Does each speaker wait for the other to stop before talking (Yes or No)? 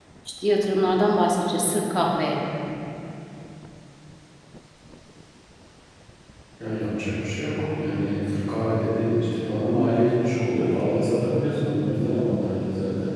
Yes